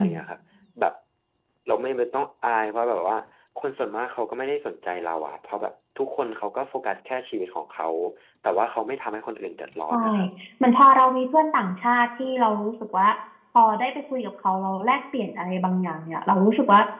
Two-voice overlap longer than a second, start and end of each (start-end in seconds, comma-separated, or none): none